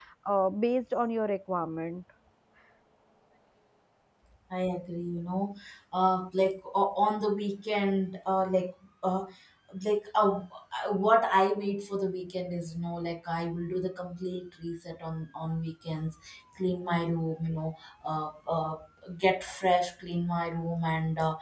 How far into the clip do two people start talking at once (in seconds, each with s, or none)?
none